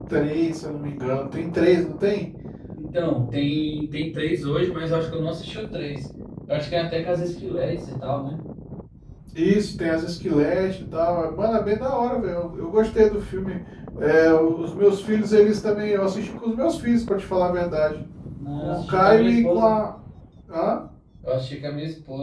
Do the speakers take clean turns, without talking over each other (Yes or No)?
No